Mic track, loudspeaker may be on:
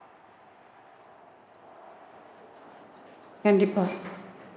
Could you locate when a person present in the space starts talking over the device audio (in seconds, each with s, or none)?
3.5 s